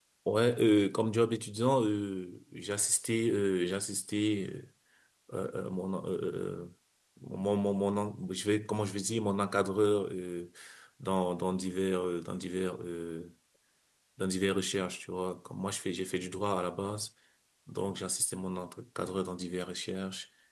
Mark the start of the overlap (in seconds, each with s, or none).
none